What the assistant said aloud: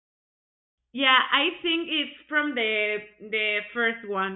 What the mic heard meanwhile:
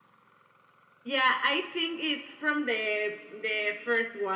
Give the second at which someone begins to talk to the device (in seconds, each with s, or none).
none